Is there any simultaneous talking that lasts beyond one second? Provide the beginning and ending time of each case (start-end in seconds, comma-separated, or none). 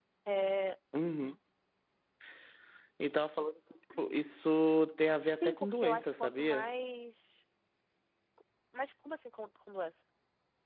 5.3-6.7